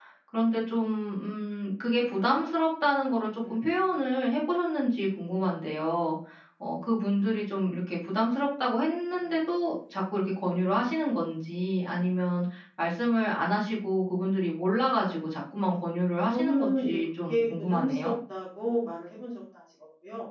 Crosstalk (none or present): present